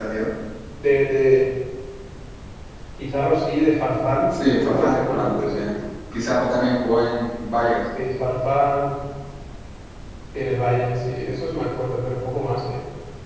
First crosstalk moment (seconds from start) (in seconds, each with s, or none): 4.3 s